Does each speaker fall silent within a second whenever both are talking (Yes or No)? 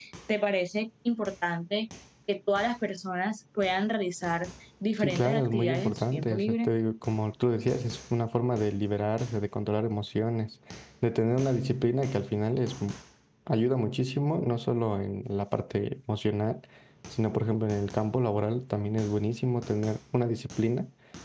No